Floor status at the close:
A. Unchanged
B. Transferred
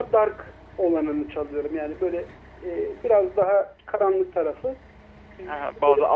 B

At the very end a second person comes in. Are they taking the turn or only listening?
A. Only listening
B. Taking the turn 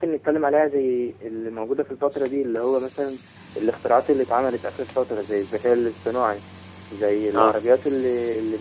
A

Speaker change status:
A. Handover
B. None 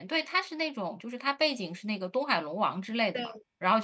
B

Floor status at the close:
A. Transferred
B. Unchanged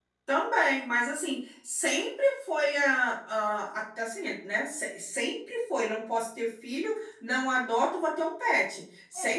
B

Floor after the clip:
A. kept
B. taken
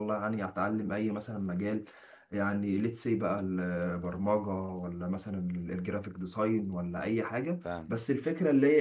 A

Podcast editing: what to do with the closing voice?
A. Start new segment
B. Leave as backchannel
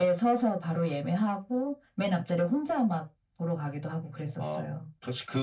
A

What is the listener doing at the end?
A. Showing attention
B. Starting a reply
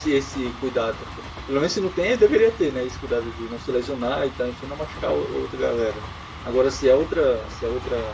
A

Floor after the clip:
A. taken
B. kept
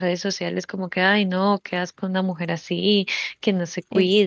B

